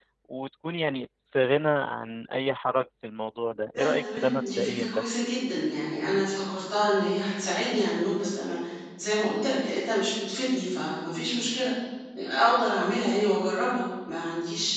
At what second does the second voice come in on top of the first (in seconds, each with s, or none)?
3.7 s